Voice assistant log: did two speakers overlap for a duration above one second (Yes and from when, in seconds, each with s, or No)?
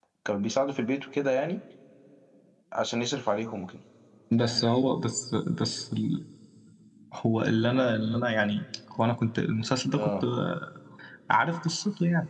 No